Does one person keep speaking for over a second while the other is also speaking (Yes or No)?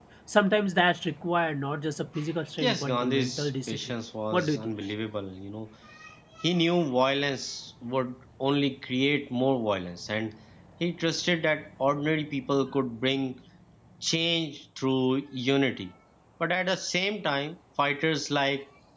Yes